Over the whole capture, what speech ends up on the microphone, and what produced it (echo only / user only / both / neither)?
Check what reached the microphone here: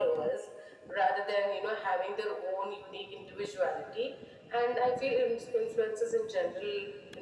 echo only